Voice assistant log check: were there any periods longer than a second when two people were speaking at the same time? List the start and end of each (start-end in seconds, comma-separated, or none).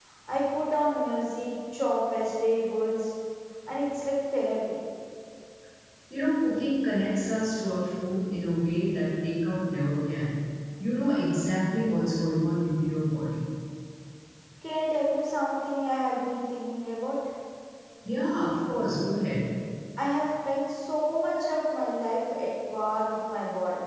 none